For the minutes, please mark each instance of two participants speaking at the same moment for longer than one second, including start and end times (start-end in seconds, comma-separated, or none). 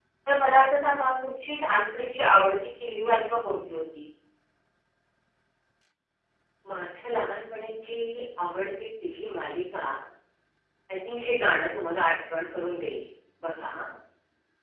none